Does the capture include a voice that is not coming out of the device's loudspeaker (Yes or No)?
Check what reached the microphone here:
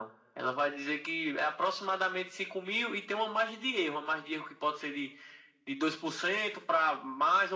No